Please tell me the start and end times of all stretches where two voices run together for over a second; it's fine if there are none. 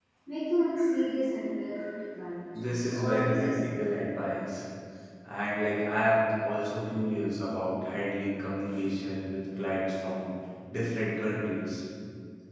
2.5-3.8

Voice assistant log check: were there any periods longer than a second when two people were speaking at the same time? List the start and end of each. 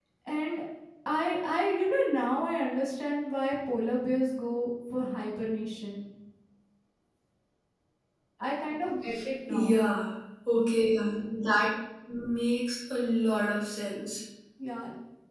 none

